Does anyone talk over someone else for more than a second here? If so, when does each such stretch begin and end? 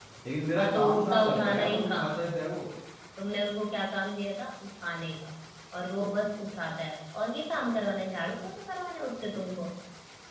0.6-2.4

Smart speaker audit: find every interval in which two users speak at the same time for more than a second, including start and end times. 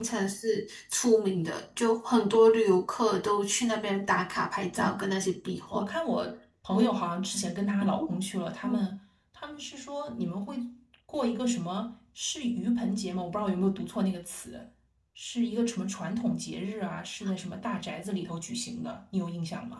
none

